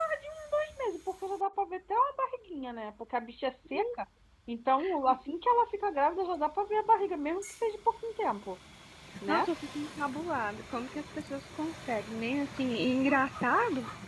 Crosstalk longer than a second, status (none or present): none